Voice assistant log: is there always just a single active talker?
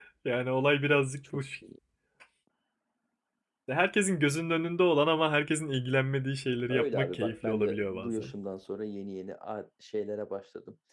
No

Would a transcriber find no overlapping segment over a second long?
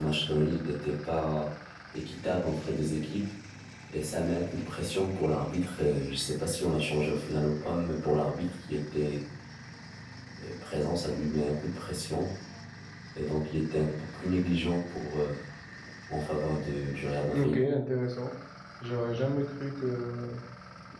Yes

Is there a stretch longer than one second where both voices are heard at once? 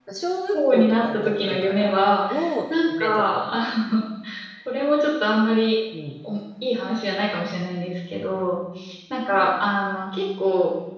Yes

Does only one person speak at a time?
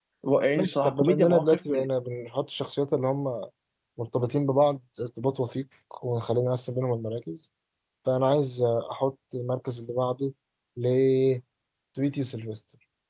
No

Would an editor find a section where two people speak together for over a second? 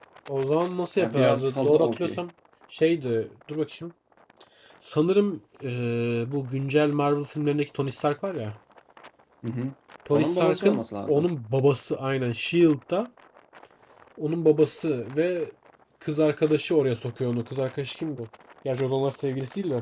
Yes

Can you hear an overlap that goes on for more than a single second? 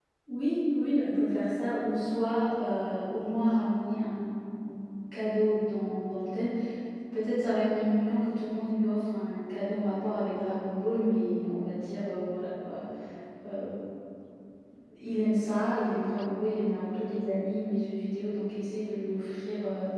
No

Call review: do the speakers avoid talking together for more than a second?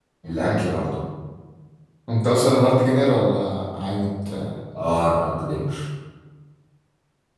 Yes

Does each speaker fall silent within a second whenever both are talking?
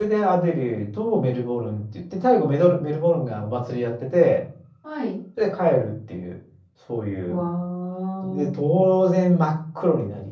Yes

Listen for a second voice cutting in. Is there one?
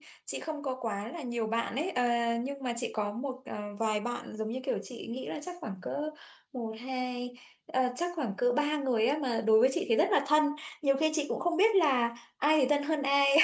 No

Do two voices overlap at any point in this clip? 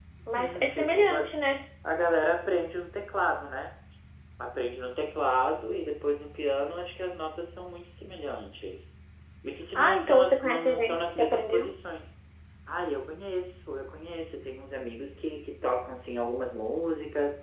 Yes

